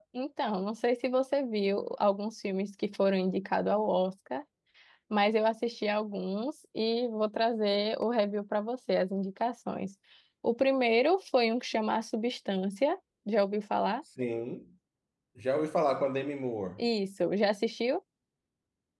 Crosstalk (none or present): none